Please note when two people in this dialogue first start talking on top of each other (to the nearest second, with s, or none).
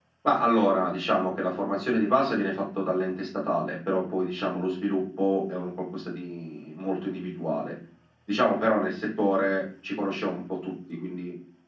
none